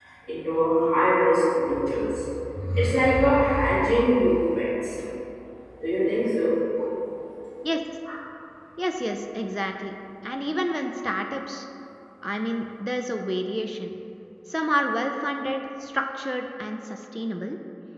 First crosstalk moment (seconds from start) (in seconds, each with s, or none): none